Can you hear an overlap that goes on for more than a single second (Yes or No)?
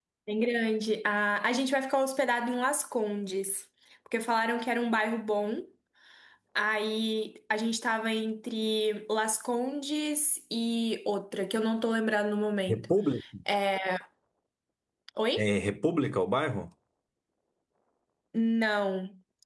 No